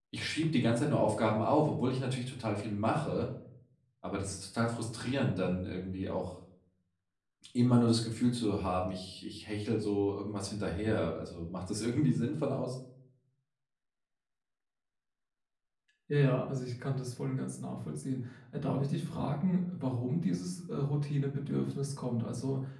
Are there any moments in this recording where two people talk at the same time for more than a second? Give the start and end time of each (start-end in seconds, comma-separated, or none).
none